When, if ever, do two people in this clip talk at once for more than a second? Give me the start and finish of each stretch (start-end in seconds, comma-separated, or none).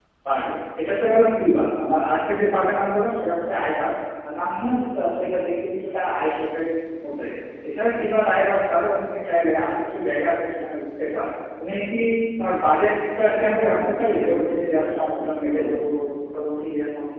13.4-15.6